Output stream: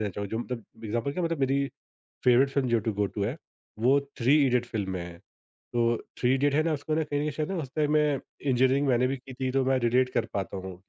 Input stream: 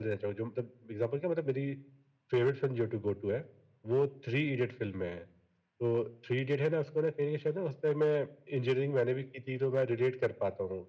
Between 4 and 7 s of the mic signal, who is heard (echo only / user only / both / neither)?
echo only